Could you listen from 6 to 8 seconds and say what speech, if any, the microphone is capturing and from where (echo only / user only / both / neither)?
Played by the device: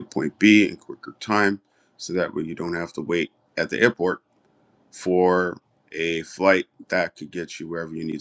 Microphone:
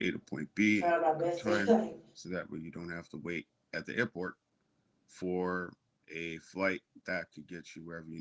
echo only